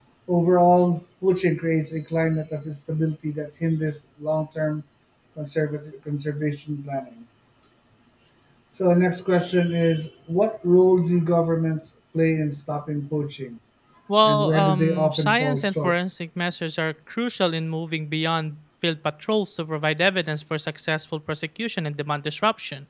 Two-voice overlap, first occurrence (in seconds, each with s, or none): 14.2 s